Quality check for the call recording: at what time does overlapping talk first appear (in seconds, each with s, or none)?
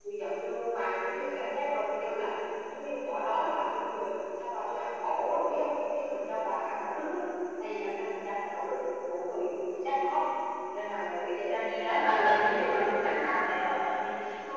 11.5 s